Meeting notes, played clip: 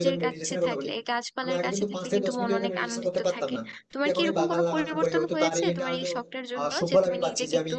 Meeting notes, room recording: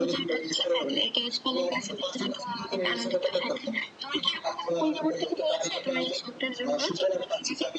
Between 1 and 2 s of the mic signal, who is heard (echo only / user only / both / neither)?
echo only